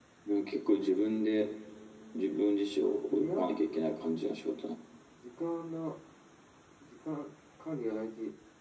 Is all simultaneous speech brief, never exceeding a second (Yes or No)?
Yes